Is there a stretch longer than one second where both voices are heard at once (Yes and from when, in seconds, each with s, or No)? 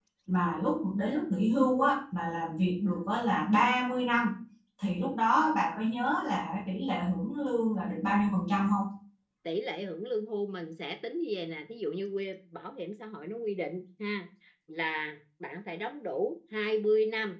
No